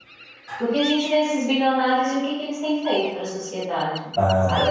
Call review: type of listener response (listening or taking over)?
listening